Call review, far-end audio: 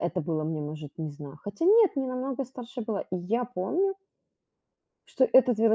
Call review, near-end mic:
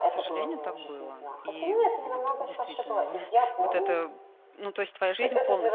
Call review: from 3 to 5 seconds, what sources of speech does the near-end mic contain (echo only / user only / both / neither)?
both